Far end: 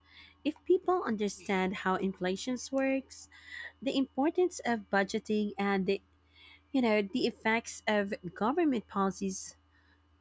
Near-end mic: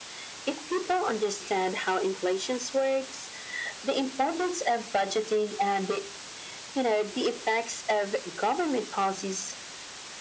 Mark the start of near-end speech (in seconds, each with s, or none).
none